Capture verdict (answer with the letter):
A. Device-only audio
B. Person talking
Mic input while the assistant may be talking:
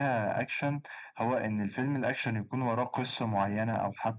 A